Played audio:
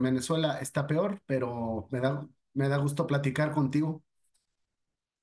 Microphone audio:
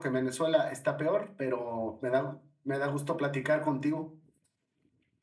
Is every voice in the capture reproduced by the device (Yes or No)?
Yes